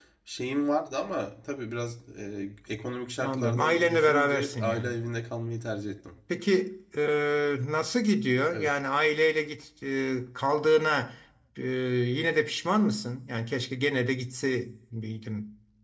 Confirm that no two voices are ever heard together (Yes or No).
No